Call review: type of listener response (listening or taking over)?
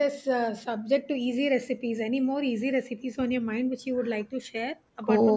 taking over